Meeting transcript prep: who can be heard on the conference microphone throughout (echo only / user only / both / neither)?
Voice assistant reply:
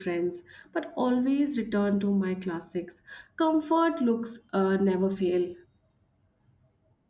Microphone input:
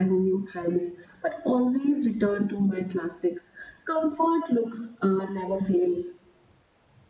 echo only